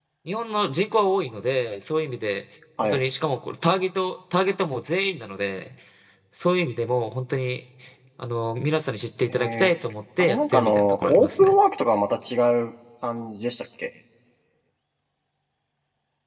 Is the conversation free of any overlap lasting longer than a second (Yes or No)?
No